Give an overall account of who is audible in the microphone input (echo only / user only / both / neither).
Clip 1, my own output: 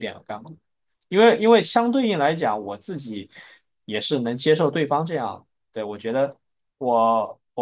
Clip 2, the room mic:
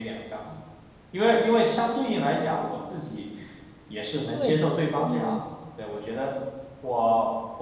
both